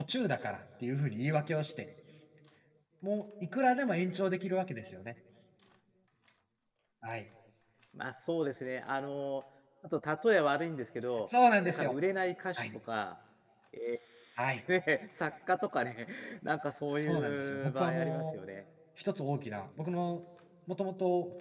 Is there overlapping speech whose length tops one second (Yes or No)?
Yes